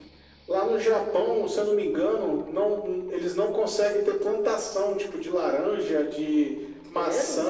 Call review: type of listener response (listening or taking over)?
taking over